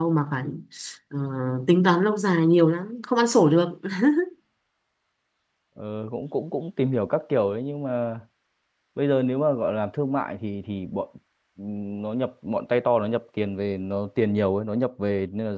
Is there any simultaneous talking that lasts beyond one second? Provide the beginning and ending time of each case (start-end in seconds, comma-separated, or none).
none